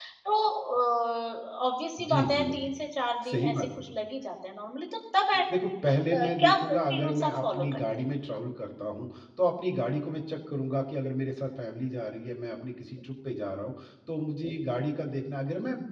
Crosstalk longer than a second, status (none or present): present